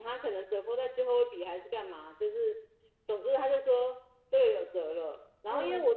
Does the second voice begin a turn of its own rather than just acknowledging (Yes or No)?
No